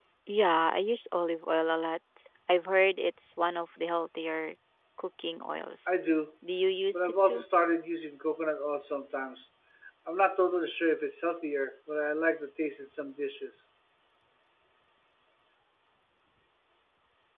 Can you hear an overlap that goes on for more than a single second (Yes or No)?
No